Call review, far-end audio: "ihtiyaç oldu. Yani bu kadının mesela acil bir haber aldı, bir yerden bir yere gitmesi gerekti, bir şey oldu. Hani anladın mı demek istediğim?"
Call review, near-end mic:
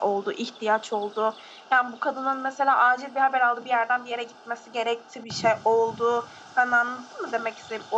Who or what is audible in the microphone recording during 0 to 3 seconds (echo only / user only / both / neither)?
echo only